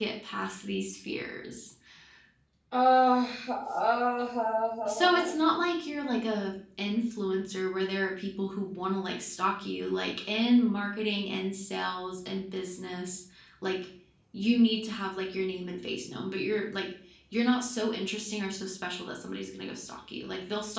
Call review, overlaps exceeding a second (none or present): none